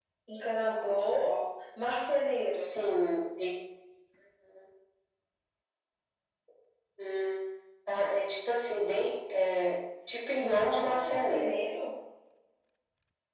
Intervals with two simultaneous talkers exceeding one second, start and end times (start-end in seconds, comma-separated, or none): 10.3-11.7